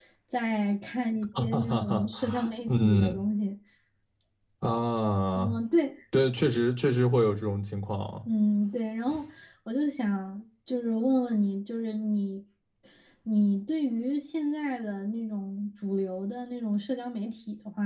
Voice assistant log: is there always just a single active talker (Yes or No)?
No